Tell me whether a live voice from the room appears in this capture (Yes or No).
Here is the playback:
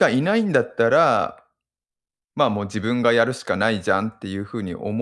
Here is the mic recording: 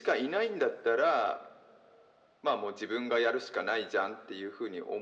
No